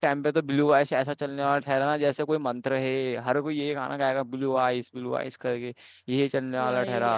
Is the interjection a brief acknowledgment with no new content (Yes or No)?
Yes